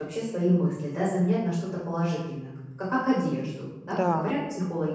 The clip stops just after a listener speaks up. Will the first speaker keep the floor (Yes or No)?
Yes